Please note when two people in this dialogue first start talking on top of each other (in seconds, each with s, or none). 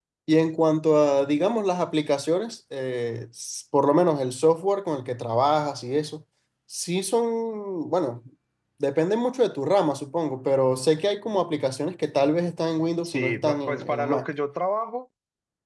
13.0 s